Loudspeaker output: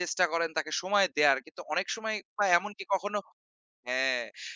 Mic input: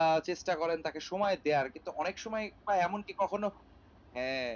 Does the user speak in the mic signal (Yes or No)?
No